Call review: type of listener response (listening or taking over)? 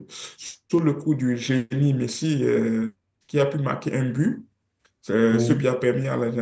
listening